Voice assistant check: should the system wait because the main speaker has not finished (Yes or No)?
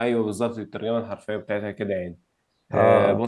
Yes